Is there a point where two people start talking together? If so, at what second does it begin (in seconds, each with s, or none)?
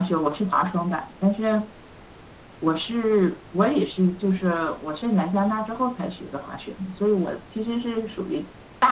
none